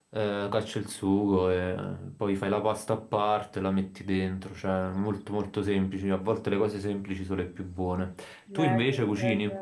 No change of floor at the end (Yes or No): No